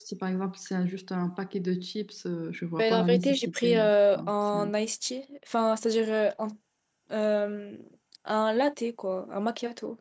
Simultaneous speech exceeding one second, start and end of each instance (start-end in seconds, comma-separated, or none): 2.8-4.7